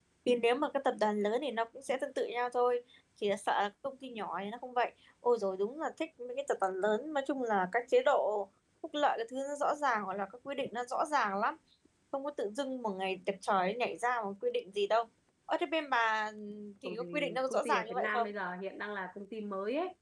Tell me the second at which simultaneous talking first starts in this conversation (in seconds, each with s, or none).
16.8 s